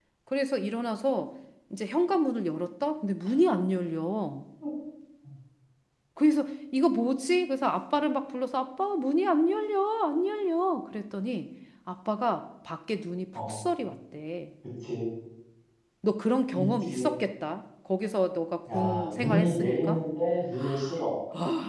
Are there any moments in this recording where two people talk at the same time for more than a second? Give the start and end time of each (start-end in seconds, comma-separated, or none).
18.7-20.0